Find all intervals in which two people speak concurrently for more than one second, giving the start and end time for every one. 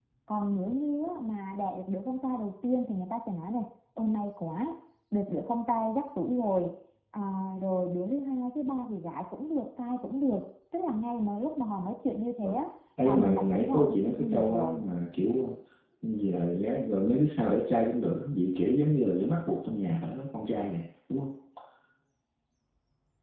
13.0-14.8

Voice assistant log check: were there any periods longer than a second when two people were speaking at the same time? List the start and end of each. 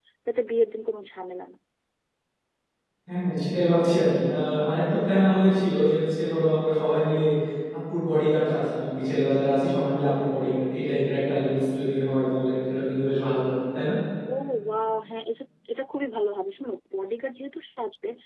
none

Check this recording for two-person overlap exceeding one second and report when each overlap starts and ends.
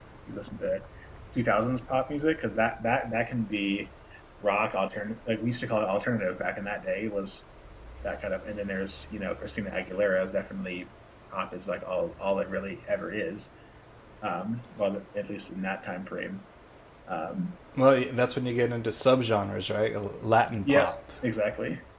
none

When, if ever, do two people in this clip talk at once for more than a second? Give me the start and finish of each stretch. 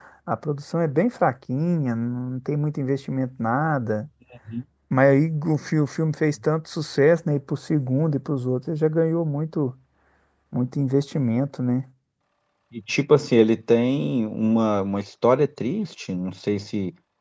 none

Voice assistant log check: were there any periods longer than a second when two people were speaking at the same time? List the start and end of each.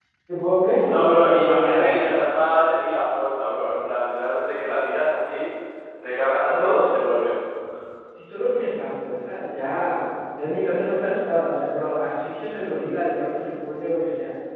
0.8-2.0

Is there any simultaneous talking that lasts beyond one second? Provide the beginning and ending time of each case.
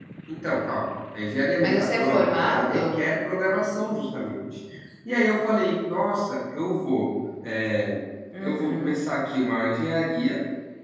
1.6-3.0

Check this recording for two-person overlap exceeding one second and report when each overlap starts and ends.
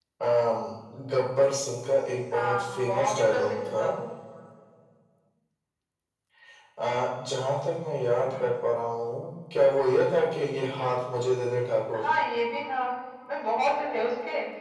2.3-3.9

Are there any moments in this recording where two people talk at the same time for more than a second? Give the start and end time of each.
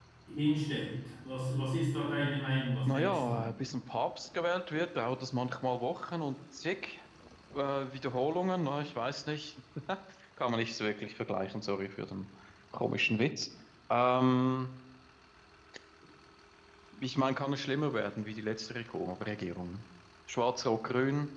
none

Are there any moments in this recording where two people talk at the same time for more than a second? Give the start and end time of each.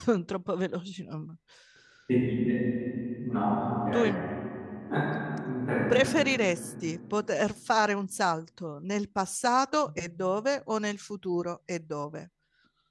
none

